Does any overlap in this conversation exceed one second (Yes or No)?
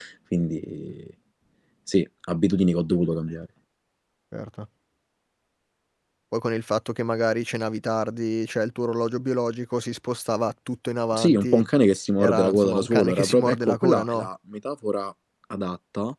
Yes